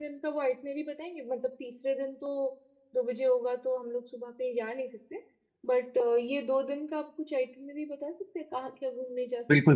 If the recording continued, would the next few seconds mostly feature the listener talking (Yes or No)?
Yes